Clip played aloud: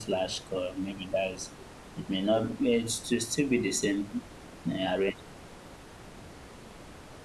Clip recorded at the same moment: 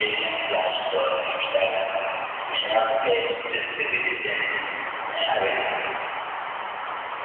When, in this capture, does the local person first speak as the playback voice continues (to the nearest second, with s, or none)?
none